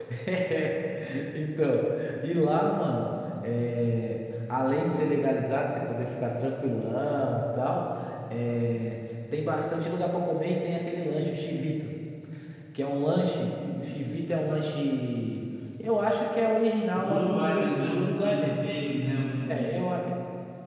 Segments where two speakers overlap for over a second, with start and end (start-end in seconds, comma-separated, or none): 16.9-18.7